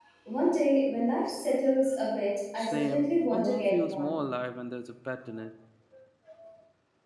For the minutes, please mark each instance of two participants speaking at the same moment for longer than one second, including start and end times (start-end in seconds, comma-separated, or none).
2.6-4.2